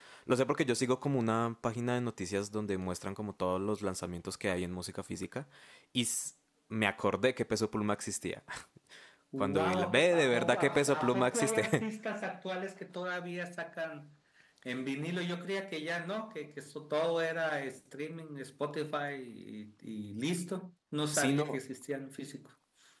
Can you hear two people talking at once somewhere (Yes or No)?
Yes